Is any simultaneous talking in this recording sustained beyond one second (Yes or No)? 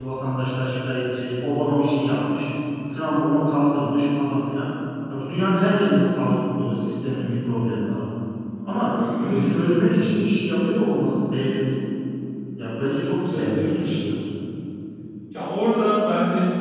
Yes